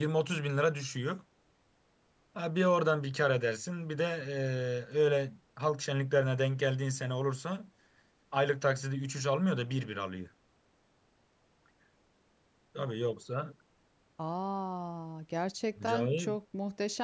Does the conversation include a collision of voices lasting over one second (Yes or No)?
No